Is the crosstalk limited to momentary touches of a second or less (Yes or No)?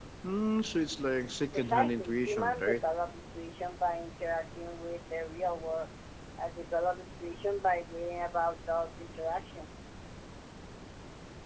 No